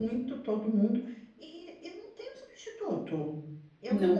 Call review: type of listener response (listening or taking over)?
listening